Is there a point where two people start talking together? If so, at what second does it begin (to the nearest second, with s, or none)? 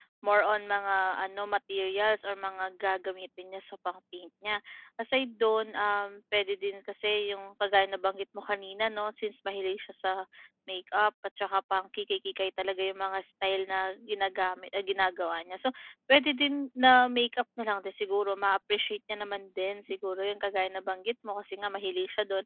none